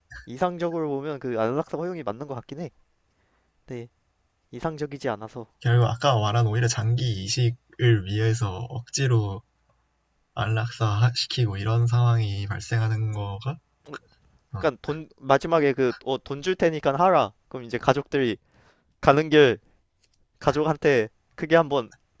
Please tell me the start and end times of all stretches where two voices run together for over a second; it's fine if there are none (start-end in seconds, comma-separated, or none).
none